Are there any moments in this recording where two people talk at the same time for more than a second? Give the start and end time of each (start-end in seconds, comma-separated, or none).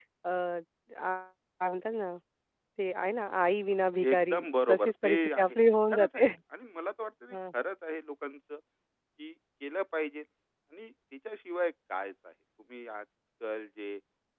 4.1-5.6